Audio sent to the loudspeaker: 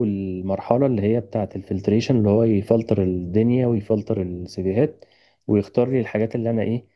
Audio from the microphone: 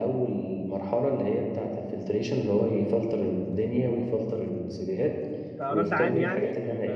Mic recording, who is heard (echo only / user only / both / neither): both